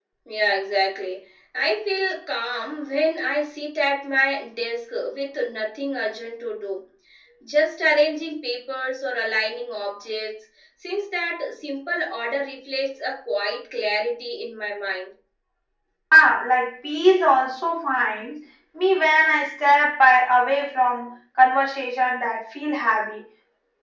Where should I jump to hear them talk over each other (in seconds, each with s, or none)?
none